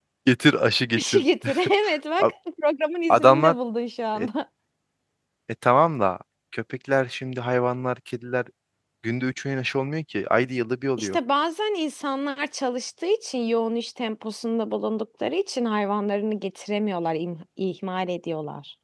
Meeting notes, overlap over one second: none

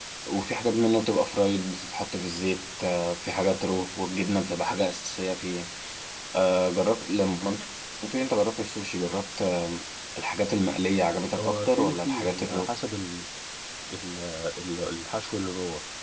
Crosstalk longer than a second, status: present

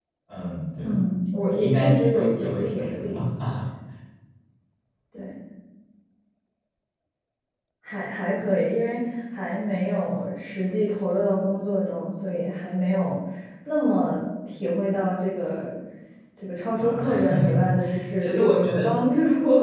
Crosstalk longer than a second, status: present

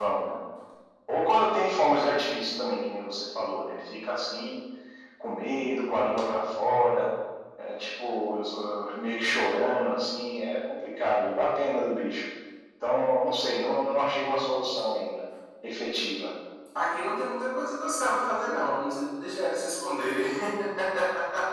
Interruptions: none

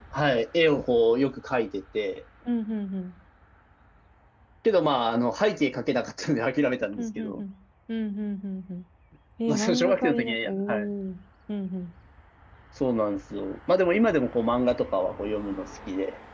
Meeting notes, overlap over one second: present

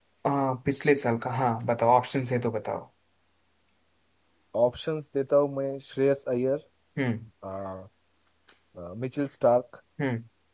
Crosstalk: none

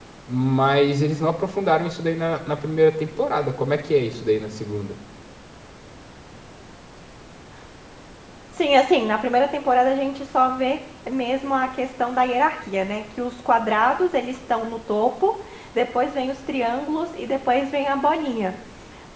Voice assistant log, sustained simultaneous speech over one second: none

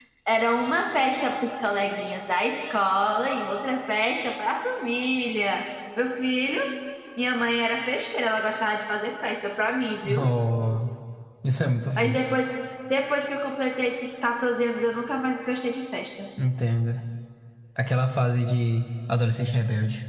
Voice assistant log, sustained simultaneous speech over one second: none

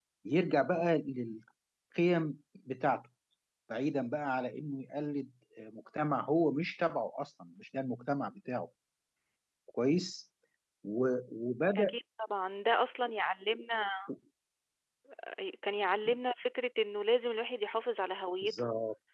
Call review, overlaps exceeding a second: none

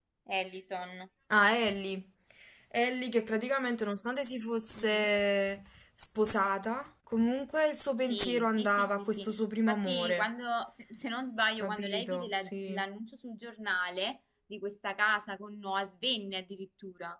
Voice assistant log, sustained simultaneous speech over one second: present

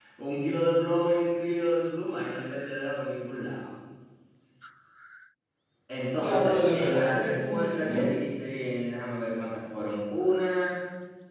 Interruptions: present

